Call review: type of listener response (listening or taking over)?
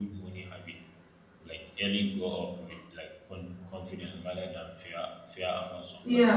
taking over